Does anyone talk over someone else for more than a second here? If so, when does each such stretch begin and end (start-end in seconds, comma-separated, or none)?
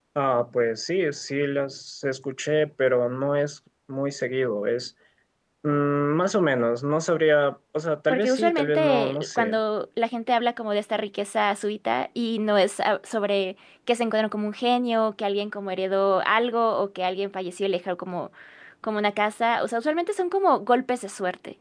8.1-9.6